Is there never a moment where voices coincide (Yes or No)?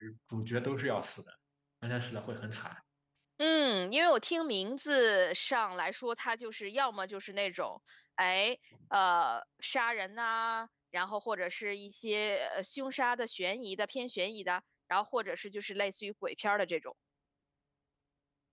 Yes